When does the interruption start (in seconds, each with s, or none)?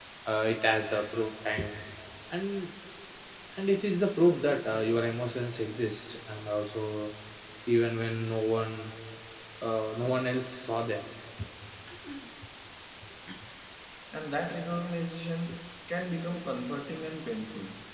none